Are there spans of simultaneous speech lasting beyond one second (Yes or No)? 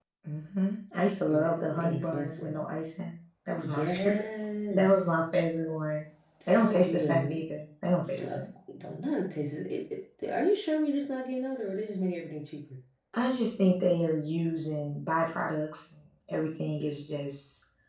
Yes